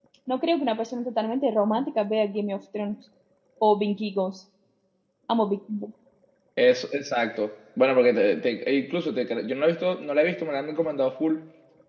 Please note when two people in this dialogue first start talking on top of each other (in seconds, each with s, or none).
none